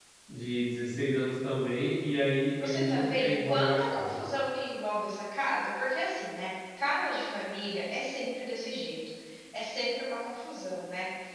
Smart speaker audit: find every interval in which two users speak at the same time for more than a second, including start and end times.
2.6-4.2

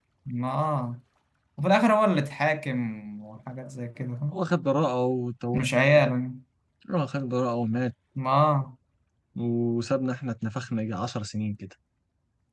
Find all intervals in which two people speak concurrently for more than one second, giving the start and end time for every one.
none

